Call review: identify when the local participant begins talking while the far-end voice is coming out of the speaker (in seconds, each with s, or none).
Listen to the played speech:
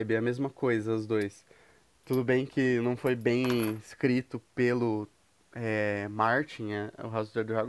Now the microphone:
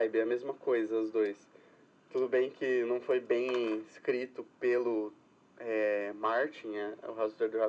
none